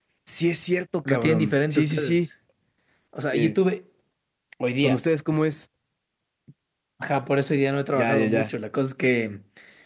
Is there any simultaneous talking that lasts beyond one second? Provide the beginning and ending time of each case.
1.1-2.3

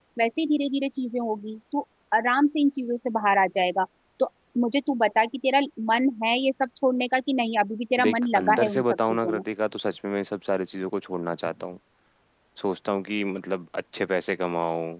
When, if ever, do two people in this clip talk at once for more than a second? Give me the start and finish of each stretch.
8.0-9.4

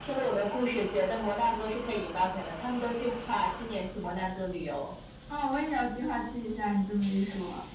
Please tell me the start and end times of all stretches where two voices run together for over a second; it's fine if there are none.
none

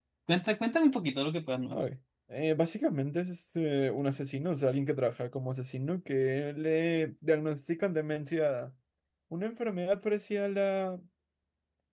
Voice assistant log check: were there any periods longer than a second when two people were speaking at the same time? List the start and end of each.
none

